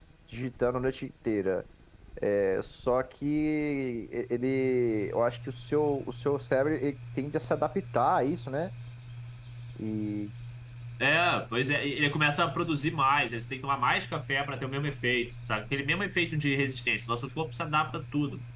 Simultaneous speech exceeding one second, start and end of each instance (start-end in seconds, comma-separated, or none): none